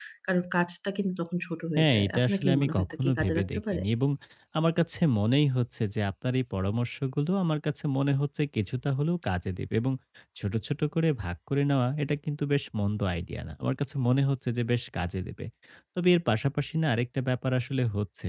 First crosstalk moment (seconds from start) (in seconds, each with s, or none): 1.8 s